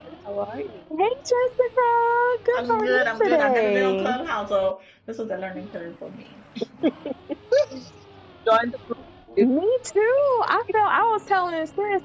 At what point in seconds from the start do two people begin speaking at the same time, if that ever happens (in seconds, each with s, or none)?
2.5 s